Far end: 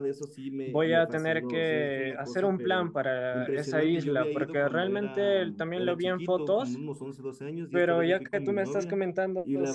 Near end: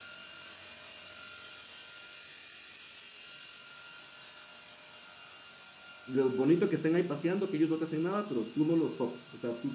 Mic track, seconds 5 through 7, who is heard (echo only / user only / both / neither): user only